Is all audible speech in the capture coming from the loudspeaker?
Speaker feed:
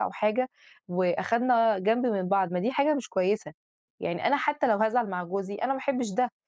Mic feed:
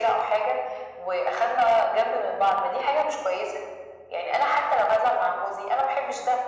Yes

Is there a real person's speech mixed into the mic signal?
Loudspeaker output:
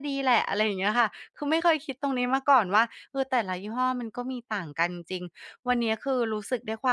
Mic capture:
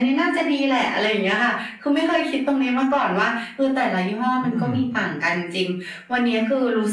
Yes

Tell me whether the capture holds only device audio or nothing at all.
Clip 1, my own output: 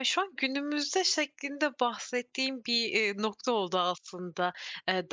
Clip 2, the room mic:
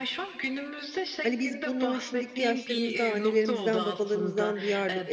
No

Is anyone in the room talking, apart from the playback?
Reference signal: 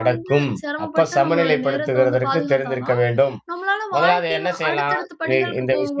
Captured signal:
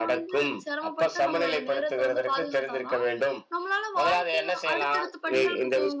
No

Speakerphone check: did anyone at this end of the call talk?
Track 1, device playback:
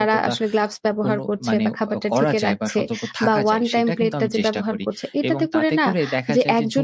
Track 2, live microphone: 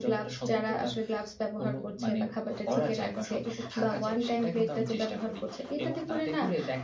No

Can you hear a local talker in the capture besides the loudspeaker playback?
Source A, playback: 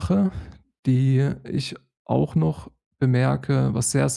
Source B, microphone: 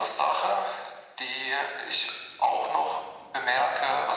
No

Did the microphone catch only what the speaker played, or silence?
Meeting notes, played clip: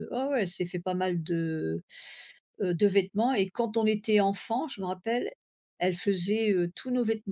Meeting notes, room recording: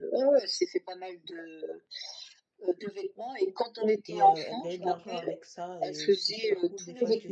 No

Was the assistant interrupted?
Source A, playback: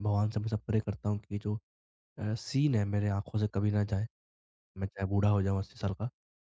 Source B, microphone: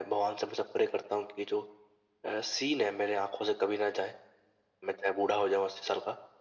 No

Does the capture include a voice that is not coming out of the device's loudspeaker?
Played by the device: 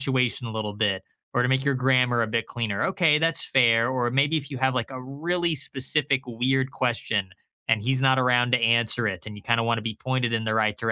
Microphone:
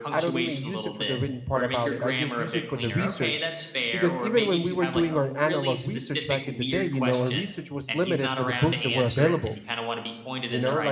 Yes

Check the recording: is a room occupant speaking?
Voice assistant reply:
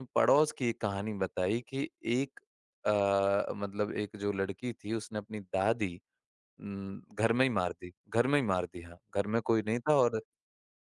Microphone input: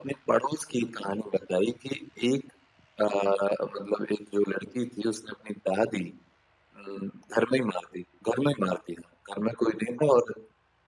No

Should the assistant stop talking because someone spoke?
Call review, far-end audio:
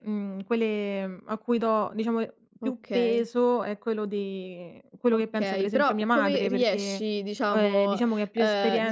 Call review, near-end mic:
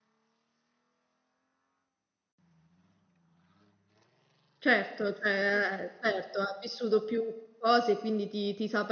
Yes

